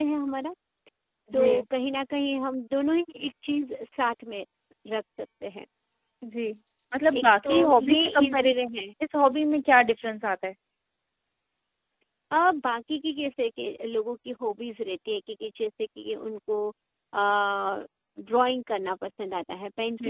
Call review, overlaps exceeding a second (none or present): present